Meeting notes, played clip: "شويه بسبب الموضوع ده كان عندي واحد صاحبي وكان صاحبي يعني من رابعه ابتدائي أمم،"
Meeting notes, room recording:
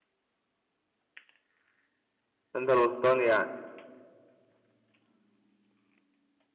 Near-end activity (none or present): present